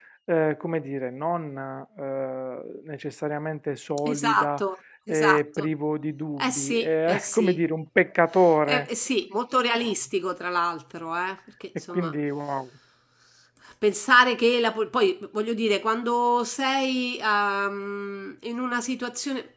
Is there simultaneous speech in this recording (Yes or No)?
Yes